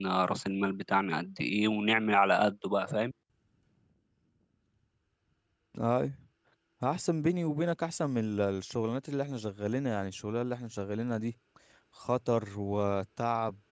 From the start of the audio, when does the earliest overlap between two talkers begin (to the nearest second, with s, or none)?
none